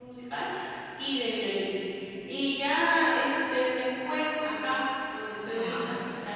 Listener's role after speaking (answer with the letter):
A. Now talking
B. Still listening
B